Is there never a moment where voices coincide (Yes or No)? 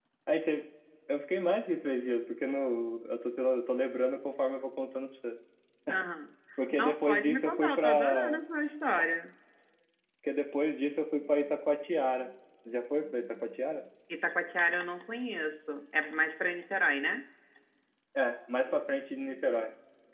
No